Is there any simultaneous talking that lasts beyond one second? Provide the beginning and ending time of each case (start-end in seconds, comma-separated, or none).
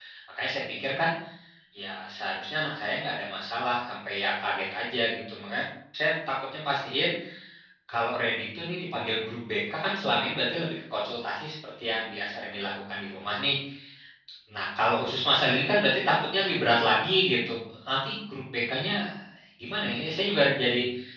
none